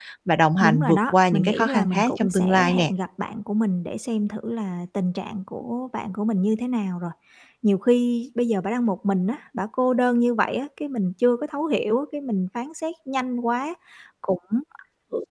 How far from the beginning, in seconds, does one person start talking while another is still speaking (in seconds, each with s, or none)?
0.6 s